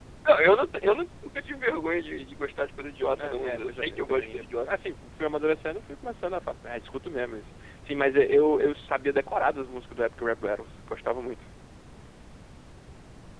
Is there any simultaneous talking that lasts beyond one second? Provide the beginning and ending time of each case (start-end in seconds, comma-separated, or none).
3.2-4.7